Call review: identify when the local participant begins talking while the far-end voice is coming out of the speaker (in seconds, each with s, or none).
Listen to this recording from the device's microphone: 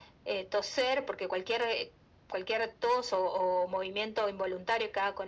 none